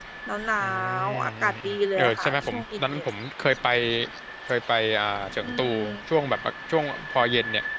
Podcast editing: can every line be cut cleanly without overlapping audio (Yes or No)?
No